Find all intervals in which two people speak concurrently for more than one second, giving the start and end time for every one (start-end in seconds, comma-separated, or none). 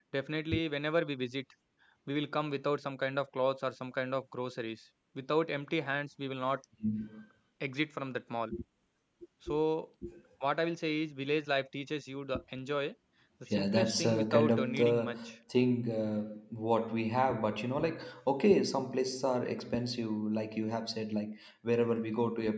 13.5-15.3